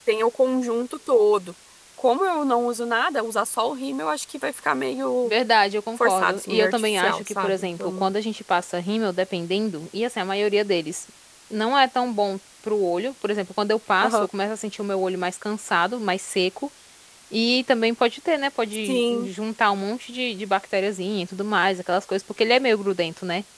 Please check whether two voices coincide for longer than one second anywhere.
Yes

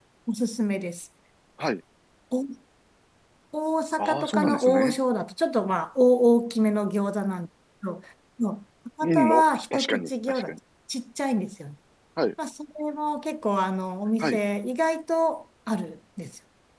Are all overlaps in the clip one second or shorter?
No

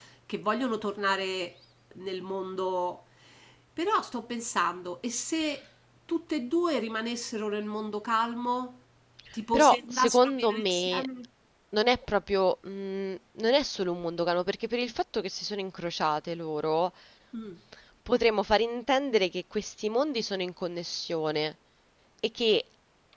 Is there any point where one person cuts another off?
Yes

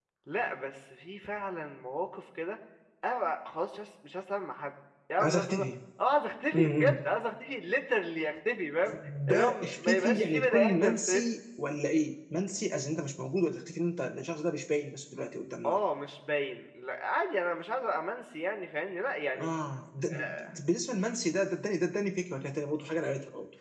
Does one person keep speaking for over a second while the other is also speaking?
Yes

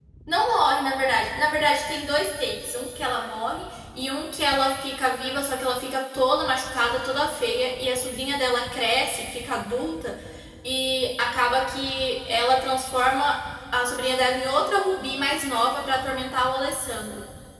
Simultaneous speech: No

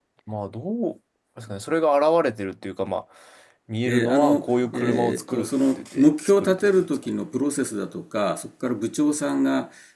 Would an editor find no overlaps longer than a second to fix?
No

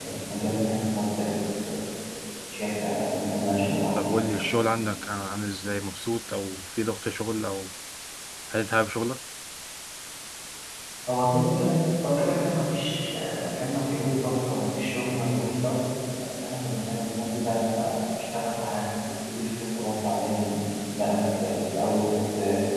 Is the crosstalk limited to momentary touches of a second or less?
Yes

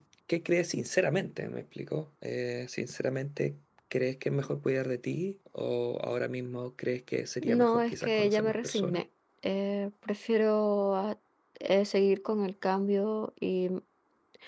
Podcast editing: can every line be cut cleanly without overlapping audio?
No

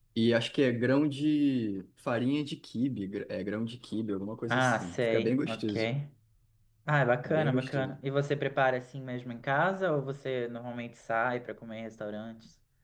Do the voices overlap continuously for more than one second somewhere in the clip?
Yes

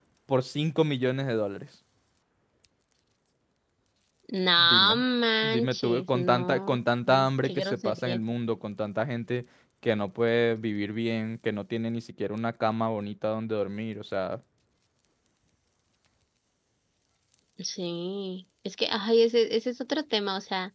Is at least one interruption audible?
Yes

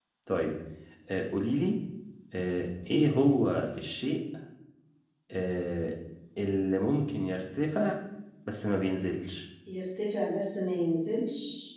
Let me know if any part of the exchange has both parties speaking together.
No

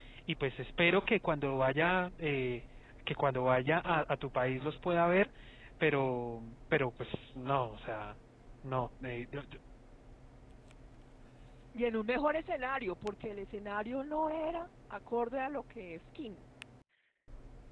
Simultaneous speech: No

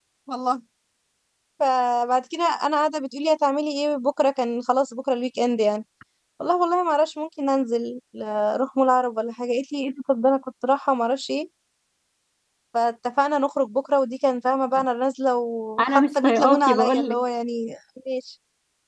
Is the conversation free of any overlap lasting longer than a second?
No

